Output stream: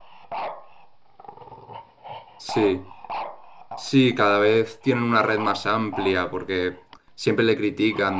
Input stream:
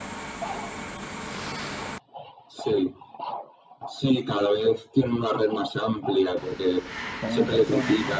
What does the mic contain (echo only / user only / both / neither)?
both